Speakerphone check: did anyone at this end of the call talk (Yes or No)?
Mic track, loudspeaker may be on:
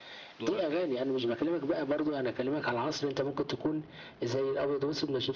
Yes